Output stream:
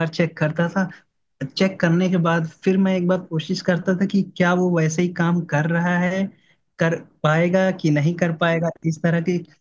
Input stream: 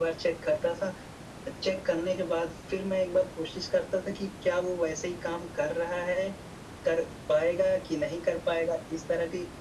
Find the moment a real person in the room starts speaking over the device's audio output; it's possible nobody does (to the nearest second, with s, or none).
none